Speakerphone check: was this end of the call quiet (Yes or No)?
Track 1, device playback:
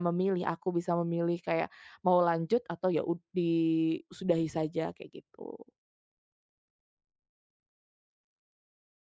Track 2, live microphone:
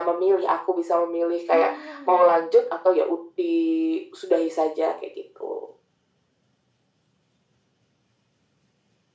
No